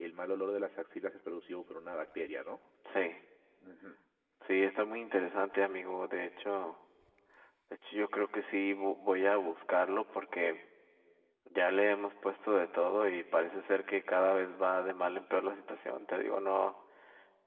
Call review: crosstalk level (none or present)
none